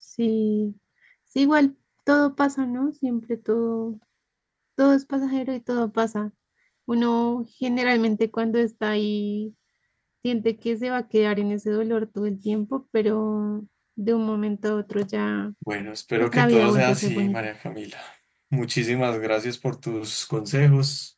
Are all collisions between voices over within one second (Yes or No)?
No